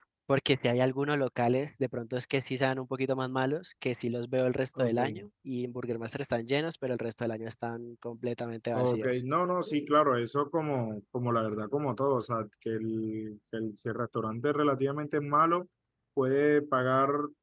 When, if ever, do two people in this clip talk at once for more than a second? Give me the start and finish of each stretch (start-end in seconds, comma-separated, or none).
none